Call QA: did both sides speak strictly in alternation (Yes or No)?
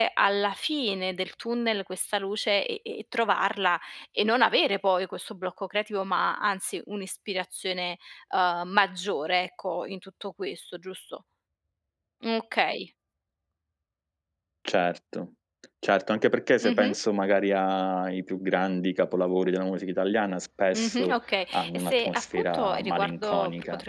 No